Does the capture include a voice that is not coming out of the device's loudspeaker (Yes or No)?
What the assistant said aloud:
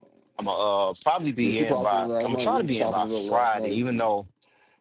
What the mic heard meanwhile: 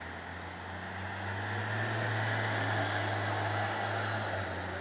No